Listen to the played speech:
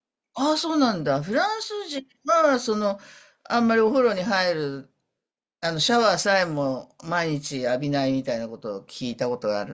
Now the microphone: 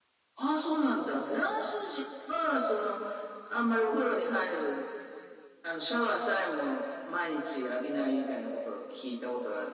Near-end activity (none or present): none